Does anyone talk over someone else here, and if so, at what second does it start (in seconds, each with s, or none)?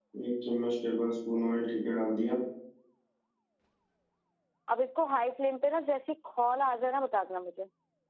none